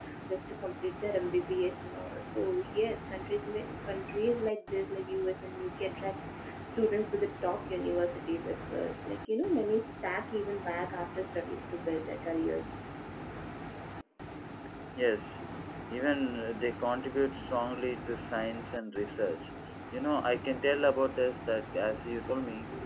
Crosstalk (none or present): none